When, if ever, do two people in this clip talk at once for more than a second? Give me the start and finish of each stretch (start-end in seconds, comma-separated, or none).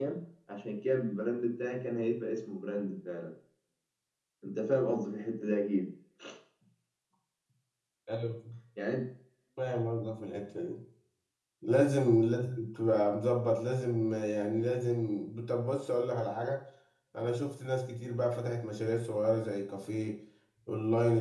none